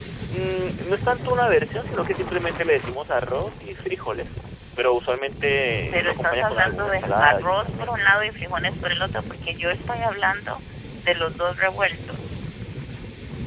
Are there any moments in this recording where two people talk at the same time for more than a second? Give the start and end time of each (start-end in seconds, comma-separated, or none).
5.9-7.9